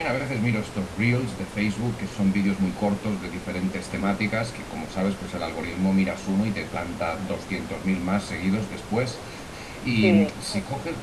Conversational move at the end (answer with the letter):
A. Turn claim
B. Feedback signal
B